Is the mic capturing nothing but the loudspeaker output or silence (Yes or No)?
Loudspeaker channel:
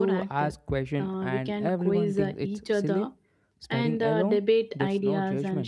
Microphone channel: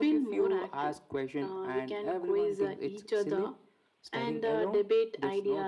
Yes